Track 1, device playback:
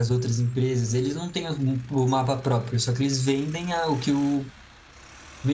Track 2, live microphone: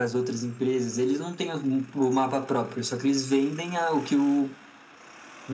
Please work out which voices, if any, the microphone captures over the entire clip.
echo only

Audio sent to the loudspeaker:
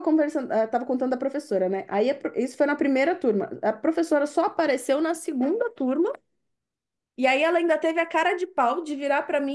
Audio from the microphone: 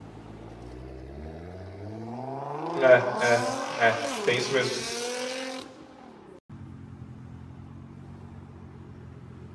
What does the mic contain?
user only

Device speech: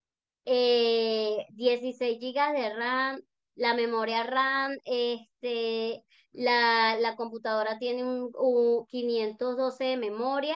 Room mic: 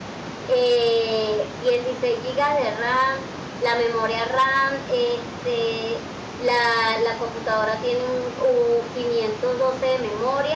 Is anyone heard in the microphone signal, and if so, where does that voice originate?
echo only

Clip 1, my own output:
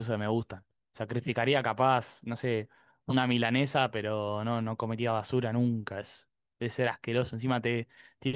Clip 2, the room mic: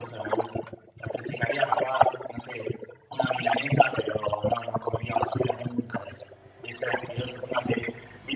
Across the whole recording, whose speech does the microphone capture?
echo only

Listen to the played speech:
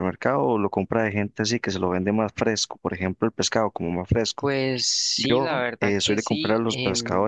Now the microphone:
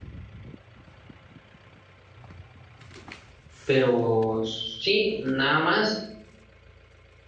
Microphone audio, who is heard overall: user only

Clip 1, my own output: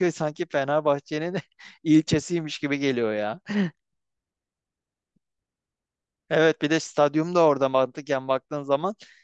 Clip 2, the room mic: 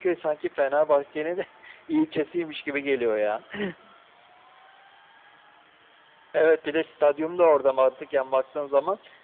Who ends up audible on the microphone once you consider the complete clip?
echo only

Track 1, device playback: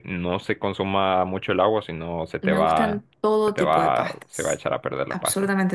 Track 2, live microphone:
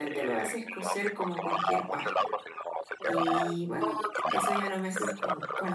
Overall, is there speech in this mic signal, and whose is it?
both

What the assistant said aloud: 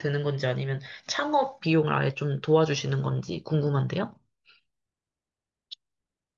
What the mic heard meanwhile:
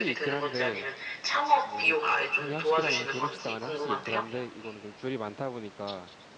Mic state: both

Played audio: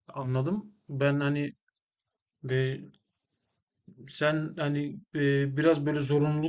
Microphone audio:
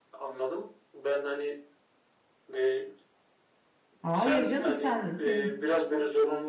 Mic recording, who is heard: both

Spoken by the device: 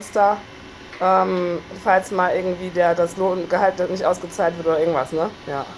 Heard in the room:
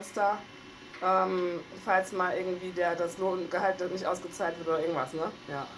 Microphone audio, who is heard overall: echo only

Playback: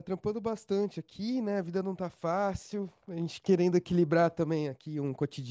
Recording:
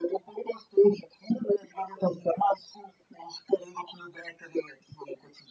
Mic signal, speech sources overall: echo only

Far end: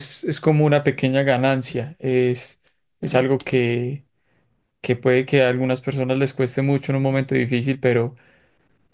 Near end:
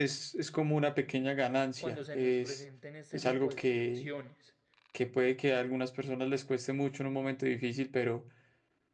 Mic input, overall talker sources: both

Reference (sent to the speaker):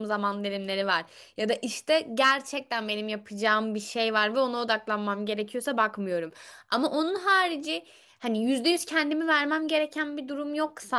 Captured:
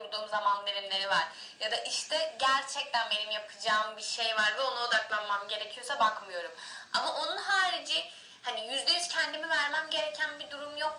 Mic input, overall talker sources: echo only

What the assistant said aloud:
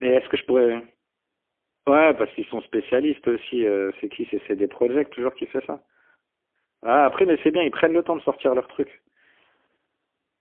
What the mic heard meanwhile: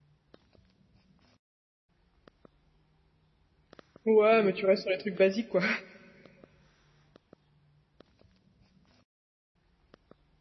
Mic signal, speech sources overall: user only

